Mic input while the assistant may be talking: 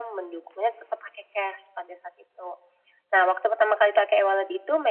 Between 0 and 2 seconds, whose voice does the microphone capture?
echo only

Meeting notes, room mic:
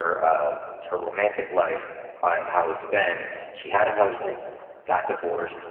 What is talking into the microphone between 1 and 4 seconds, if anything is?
echo only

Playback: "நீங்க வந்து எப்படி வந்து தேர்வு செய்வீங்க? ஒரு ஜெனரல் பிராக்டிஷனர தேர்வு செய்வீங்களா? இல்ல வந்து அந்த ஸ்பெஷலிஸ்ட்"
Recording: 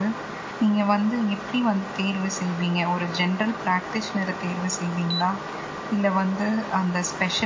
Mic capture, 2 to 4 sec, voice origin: echo only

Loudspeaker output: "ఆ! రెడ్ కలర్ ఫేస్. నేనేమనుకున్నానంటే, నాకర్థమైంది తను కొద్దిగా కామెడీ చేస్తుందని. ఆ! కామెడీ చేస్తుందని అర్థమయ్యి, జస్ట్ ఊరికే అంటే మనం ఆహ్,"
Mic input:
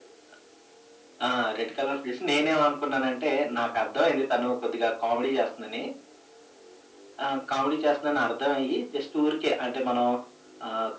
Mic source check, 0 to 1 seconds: neither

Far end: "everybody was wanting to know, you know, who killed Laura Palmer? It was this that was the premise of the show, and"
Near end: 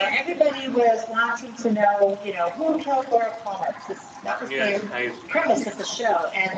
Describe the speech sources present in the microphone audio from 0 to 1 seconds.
echo only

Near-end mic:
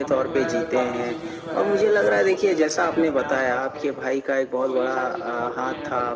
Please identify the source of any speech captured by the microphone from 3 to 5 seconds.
both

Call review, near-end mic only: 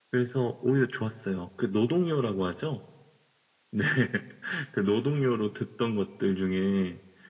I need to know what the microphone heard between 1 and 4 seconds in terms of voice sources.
echo only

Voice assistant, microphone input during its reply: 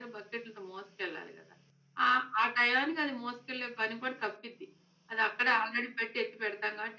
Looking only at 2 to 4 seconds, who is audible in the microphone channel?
echo only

